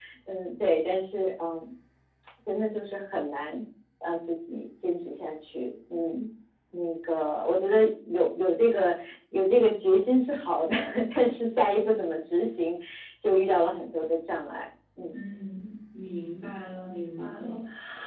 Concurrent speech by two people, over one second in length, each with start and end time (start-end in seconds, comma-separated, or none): none